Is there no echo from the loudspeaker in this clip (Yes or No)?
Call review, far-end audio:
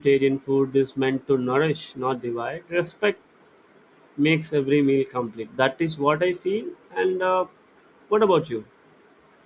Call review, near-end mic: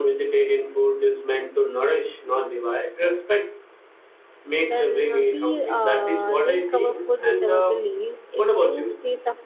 No